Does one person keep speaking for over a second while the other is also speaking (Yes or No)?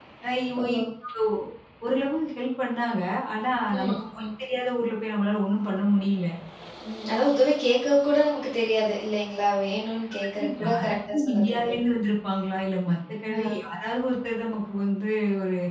Yes